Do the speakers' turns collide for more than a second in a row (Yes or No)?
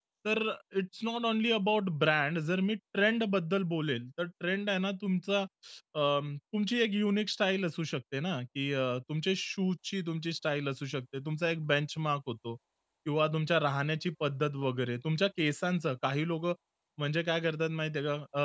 No